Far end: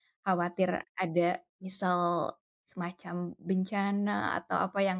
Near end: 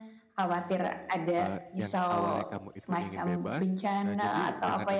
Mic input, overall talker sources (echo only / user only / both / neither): both